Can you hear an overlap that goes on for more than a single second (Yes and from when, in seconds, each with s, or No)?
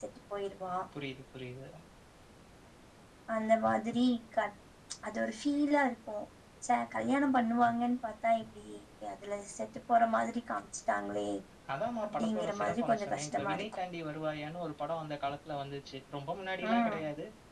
Yes, from 12.1 s